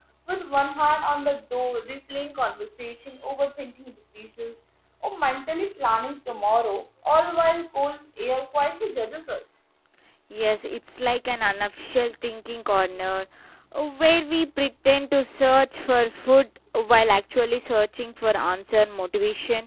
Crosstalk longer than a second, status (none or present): none